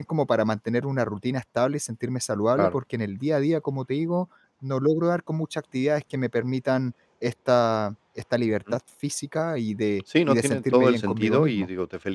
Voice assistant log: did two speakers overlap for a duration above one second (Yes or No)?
Yes